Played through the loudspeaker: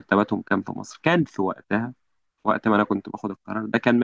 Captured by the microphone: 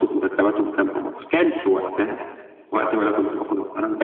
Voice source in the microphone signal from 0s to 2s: echo only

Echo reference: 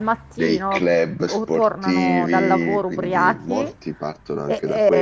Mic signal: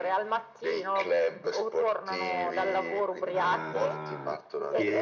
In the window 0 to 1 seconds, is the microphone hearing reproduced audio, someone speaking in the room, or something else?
echo only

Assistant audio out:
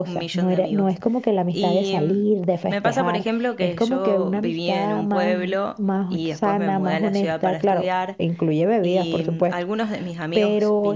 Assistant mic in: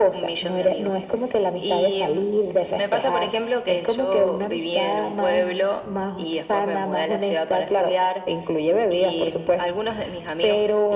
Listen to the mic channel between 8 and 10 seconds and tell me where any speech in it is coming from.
echo only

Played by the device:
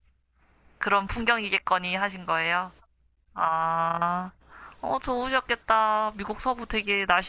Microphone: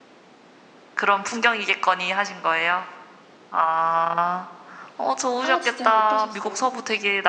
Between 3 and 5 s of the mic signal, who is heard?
echo only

